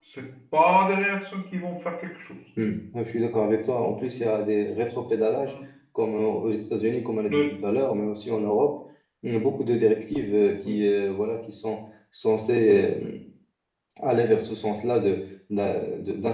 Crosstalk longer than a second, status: none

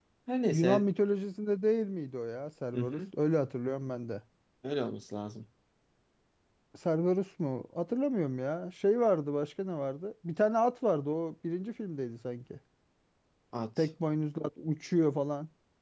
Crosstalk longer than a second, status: none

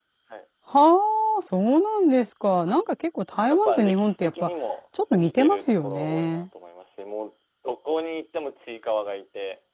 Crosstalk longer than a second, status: present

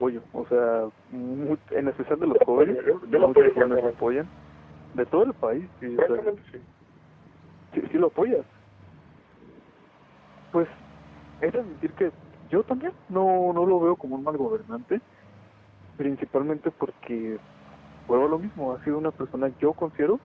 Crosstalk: present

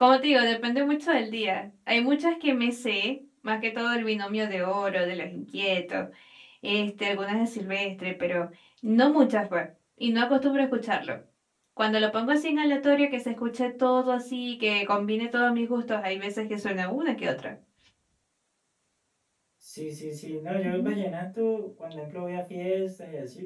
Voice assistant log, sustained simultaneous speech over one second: none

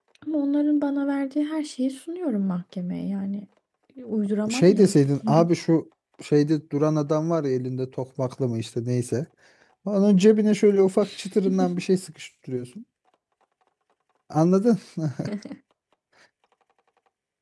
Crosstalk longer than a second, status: none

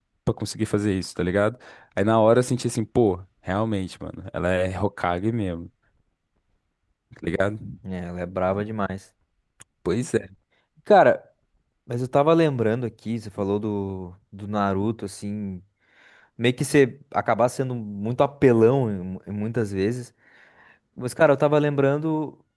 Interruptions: none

